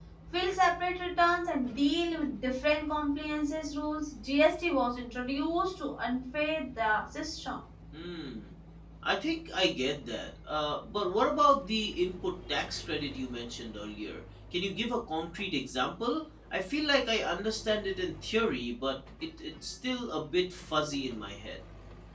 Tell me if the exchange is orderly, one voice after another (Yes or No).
Yes